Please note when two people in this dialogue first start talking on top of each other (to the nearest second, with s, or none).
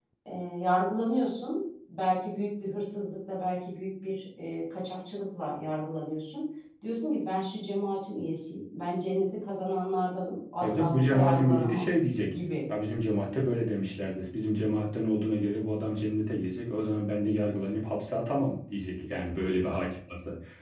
11 s